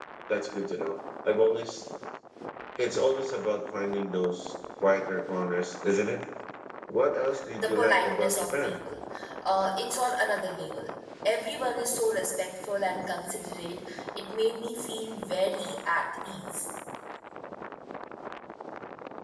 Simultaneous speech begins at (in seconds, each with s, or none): 7.6 s